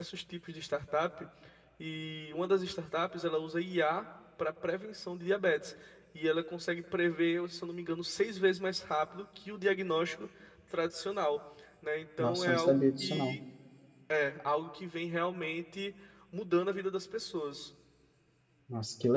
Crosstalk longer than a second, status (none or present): present